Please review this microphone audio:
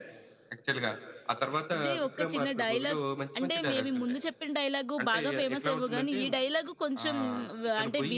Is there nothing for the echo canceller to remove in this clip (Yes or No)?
No